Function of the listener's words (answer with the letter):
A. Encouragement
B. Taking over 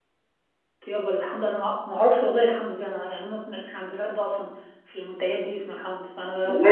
B